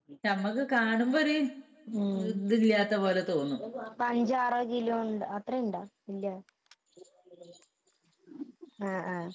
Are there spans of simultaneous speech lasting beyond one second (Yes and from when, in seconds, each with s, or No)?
No